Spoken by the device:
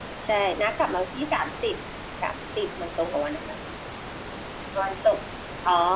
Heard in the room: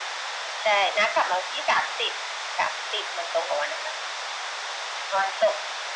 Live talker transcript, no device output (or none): none